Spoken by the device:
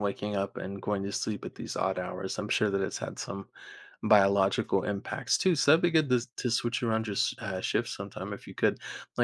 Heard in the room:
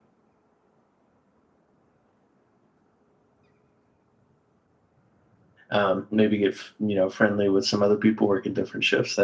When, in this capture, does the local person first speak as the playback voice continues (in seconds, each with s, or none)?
5.7 s